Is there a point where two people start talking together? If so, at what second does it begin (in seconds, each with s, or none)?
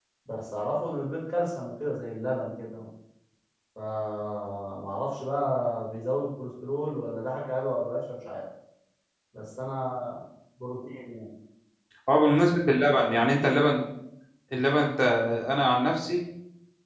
none